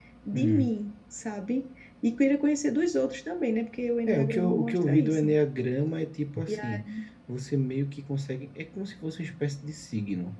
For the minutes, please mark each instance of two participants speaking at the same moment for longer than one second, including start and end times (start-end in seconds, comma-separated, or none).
4.0-5.3